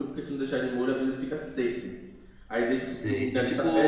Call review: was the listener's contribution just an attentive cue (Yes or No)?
No